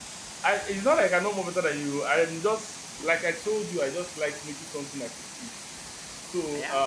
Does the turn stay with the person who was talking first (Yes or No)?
Yes